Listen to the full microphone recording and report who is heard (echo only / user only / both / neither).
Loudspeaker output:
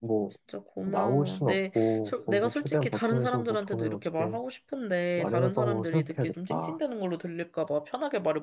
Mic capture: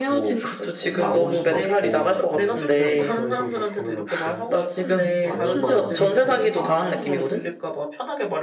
both